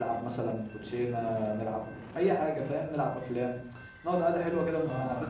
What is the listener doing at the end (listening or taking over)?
taking over